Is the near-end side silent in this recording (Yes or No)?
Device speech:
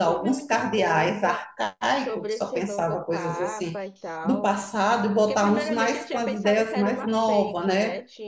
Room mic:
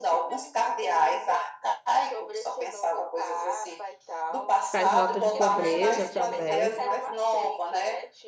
No